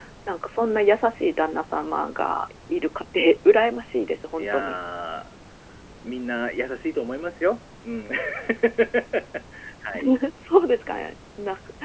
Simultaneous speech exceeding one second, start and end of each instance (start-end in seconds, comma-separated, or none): none